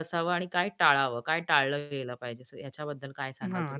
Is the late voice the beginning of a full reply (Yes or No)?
Yes